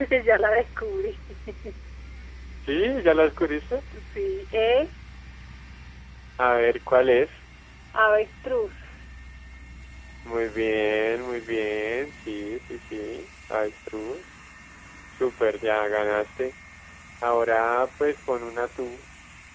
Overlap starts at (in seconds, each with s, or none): none